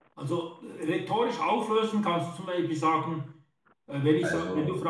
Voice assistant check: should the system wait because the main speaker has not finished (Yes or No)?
Yes